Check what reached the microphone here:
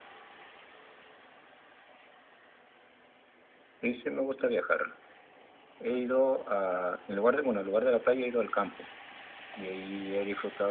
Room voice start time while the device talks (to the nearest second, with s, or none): none